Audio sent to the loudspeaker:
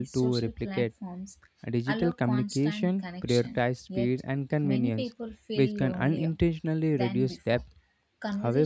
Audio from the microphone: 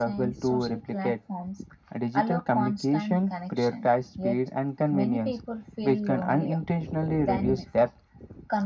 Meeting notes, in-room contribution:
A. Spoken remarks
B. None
B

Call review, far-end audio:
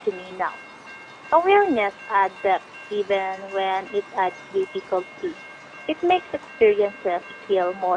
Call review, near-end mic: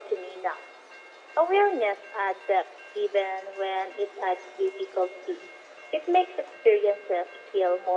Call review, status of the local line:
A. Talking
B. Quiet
B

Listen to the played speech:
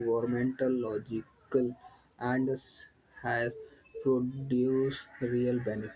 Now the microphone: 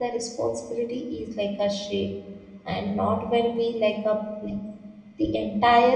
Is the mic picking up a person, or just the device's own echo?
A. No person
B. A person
B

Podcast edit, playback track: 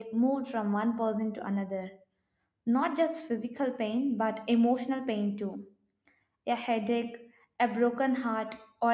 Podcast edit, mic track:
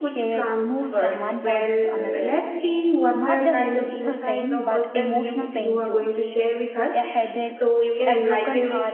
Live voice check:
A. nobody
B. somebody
B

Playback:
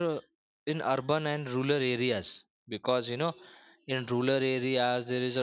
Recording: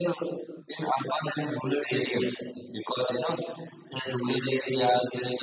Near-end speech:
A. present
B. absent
B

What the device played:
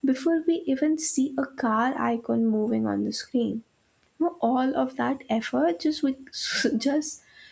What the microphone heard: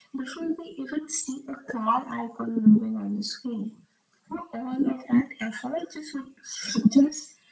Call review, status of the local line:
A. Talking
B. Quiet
B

